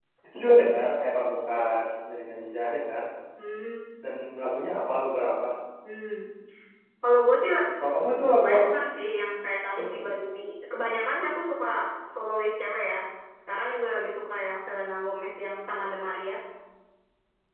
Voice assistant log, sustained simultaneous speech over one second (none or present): none